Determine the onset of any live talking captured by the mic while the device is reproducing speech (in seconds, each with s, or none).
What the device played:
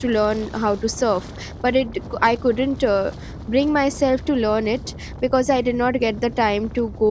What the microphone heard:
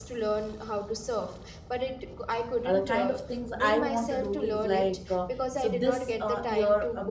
2.6 s